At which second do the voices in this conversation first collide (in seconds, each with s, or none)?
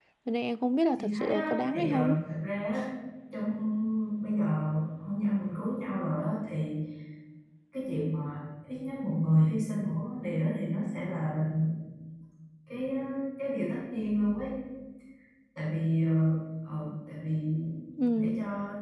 1.0 s